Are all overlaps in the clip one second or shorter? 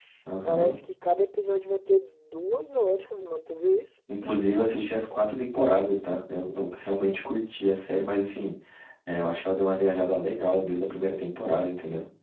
Yes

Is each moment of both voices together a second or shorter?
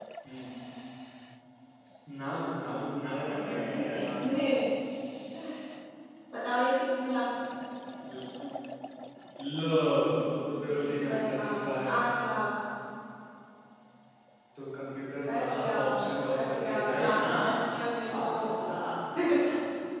No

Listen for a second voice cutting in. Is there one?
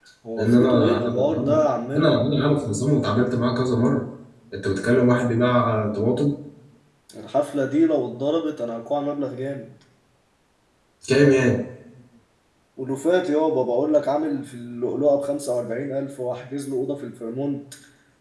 Yes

